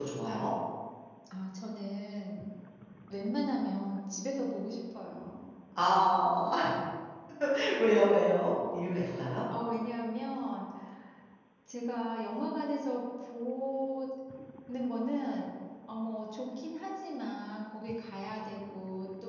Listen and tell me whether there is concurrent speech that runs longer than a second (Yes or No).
No